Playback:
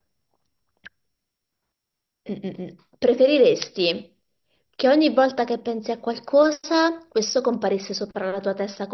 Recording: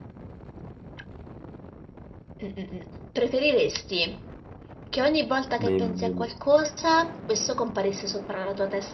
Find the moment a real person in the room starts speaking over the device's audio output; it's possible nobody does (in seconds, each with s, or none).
5.6 s